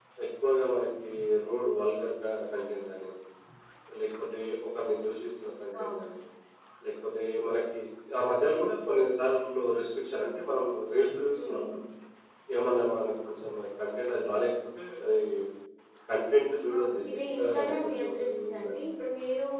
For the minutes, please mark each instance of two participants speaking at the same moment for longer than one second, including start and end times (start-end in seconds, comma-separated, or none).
16.8-18.8